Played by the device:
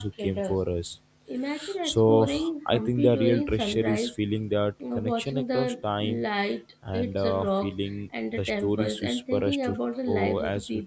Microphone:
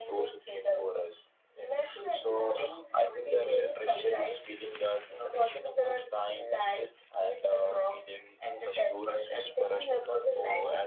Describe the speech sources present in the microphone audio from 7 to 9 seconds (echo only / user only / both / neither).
echo only